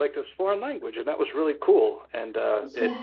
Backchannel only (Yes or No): Yes